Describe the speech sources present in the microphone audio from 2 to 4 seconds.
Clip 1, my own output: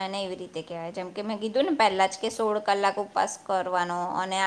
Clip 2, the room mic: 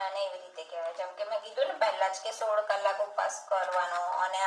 echo only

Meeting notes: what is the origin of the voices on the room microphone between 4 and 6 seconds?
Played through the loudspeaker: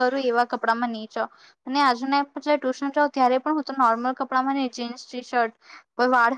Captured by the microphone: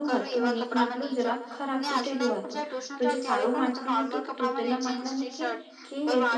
both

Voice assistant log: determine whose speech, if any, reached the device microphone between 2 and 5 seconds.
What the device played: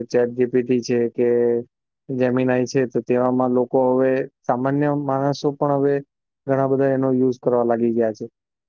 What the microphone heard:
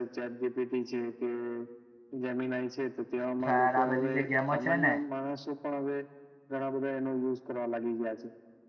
both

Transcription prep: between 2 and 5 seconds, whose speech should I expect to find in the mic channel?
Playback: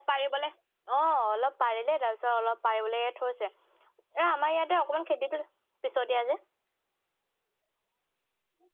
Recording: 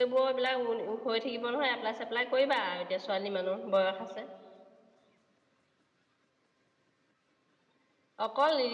user only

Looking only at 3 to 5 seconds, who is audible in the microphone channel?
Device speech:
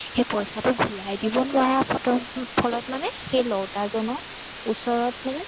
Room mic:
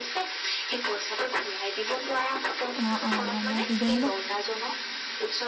both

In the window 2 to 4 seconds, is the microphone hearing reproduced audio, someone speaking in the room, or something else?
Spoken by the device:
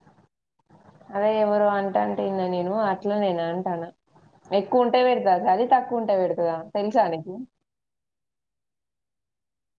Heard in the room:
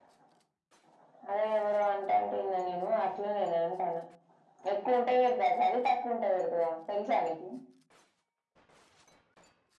echo only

